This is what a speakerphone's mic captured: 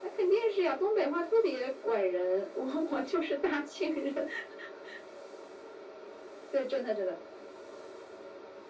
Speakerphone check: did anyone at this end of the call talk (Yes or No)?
No